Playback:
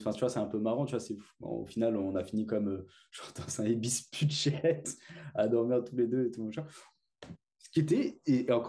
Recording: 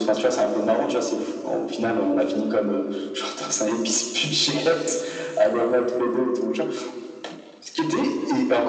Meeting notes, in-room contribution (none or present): none